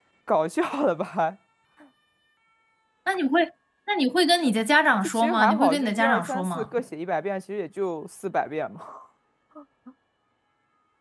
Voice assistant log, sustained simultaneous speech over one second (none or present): present